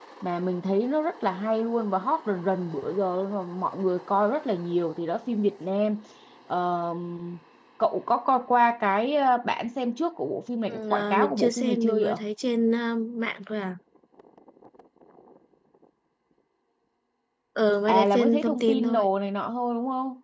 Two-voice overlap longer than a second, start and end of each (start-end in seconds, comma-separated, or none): 10.7-12.1, 17.9-19.1